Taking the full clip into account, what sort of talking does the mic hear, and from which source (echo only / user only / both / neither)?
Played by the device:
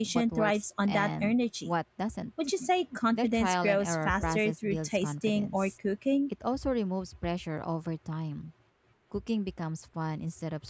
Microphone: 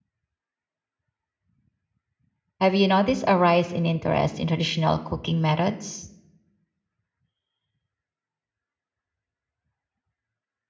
user only